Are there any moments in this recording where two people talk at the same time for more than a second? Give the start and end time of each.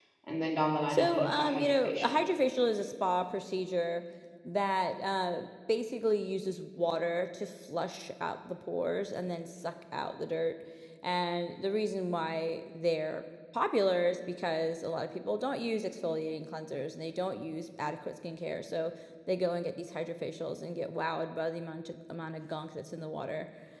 0.9-2.1

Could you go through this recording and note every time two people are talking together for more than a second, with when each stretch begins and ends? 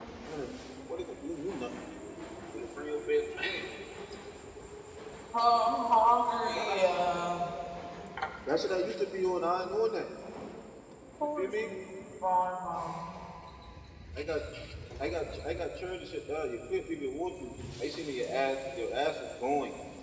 none

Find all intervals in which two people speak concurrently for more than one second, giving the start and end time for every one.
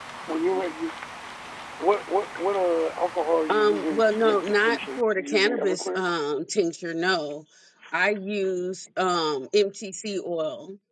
3.5-6.0

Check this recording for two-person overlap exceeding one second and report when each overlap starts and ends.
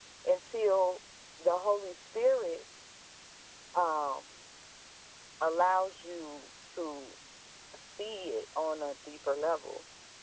none

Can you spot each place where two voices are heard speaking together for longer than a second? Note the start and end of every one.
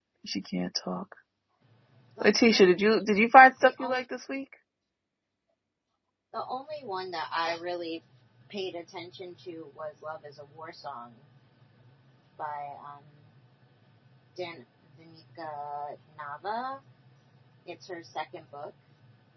none

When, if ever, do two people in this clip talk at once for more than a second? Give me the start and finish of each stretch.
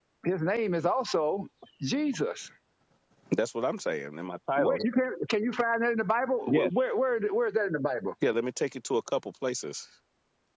none

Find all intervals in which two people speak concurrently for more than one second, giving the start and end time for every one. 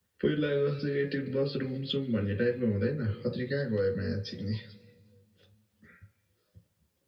none

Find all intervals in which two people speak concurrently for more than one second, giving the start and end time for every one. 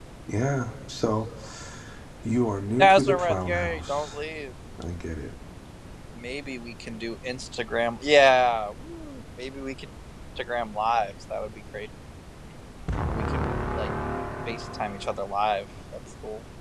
2.8-4.2

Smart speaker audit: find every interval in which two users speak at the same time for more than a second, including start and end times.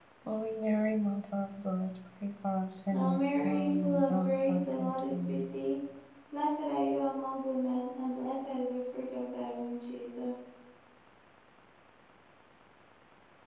2.9-5.4

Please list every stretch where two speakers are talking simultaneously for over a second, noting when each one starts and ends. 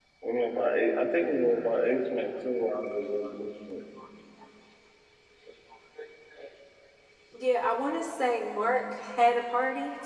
none

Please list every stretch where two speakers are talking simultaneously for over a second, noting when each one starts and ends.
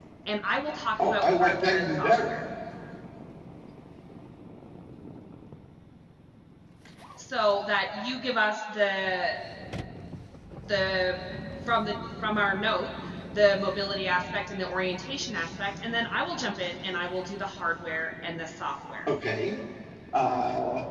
1.0-2.3

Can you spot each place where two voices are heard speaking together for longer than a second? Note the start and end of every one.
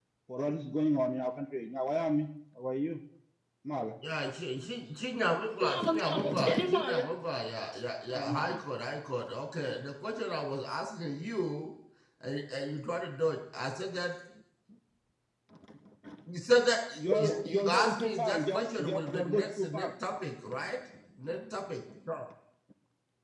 5.6-7.0, 17.0-19.9

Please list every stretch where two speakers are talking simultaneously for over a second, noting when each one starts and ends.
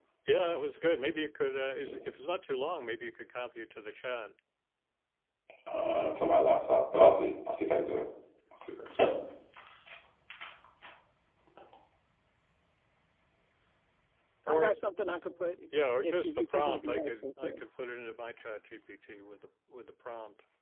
16.0-17.6

